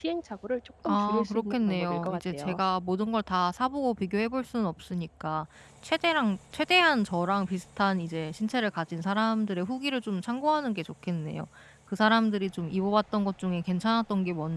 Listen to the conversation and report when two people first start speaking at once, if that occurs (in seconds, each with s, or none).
0.8 s